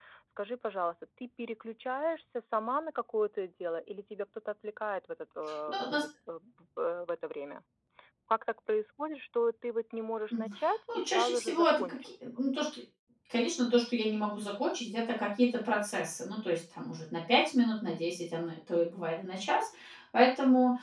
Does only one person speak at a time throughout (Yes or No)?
No